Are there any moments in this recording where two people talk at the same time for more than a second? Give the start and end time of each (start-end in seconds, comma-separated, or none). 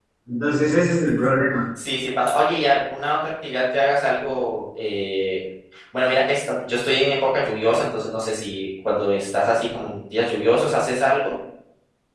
none